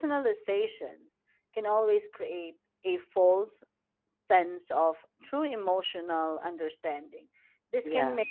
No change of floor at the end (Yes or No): Yes